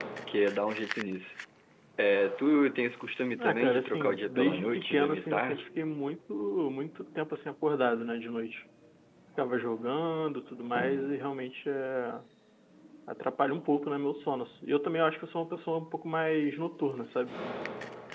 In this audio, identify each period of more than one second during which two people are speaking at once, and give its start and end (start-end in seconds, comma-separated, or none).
3.4-5.6